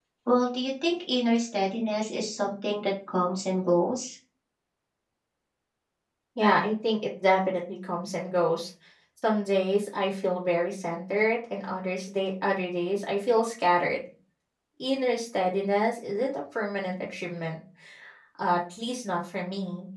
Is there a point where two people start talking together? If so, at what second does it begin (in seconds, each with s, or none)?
none